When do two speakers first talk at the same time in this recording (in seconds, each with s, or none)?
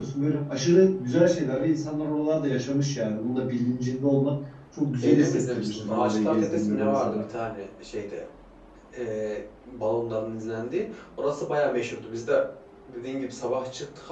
5.0 s